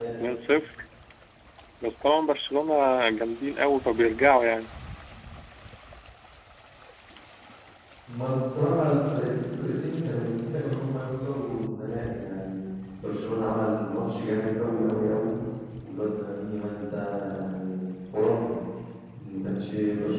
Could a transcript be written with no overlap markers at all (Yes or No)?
Yes